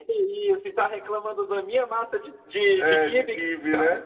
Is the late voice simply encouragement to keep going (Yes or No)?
No